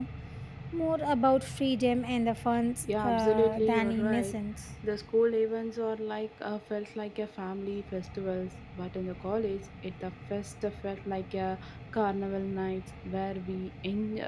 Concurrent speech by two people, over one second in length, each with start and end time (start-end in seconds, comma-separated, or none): 3.0-4.4